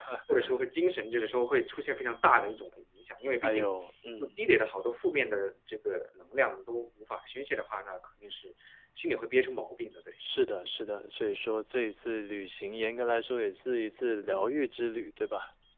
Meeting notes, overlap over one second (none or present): none